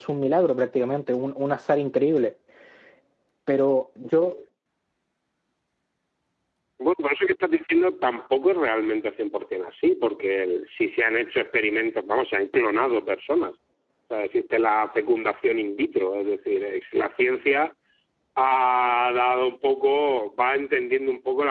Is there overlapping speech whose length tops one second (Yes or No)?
No